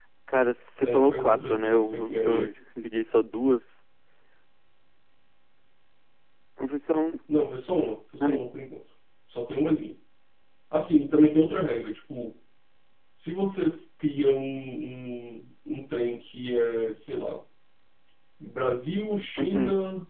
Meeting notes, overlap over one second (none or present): present